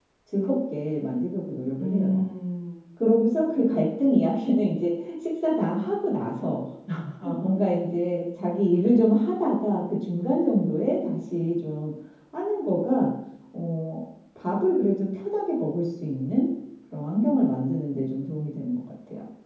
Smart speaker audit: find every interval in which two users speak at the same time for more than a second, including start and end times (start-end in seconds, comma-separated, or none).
none